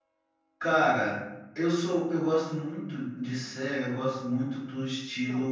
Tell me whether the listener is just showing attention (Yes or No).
Yes